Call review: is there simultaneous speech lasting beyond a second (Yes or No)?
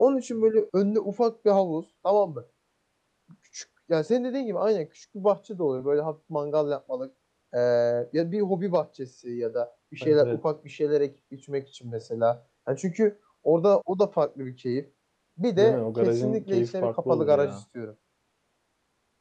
Yes